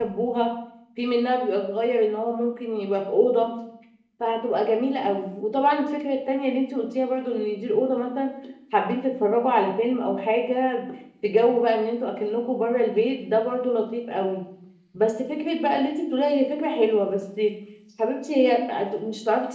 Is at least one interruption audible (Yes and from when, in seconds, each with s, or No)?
No